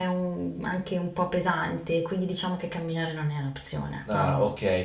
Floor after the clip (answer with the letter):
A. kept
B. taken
B